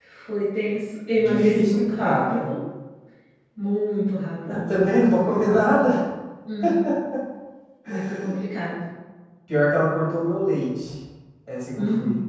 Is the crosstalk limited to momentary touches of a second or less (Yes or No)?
No